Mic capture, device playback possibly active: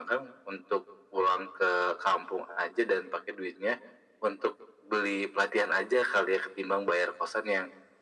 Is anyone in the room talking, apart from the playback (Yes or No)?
No